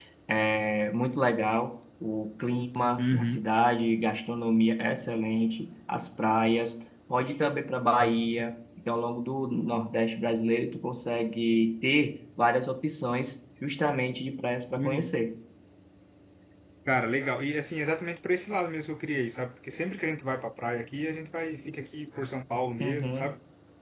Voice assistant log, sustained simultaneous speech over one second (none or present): none